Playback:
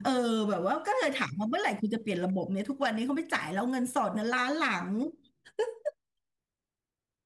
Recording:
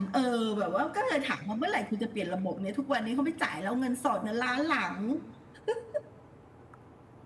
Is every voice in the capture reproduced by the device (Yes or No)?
Yes